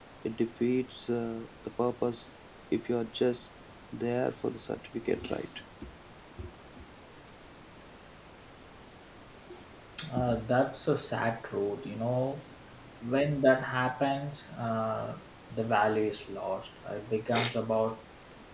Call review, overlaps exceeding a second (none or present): none